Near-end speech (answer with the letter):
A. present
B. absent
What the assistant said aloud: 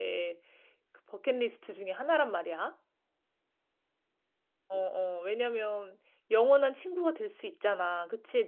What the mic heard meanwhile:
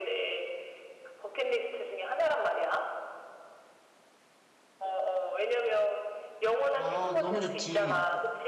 A